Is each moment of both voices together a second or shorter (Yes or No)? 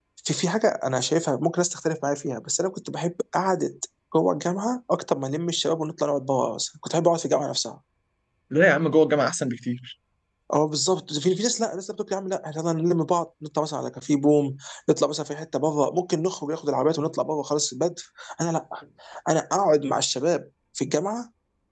Yes